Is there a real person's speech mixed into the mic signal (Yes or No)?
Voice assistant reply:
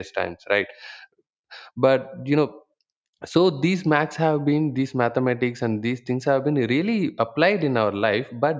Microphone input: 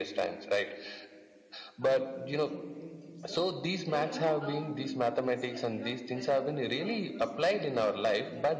Yes